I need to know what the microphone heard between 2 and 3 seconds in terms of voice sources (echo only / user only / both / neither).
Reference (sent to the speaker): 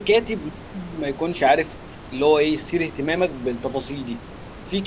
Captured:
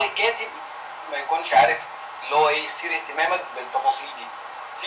echo only